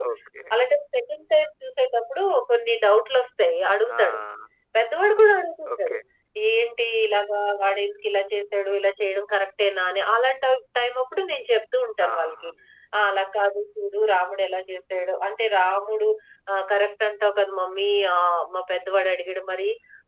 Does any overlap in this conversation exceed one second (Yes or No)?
No